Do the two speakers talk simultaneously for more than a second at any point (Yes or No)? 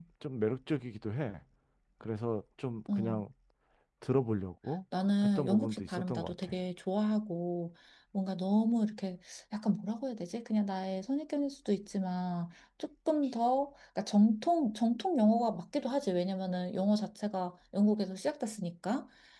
Yes